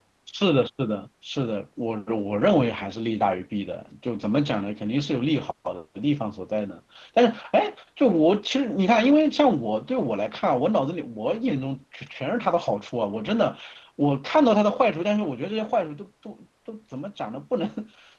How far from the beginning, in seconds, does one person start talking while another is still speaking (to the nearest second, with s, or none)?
none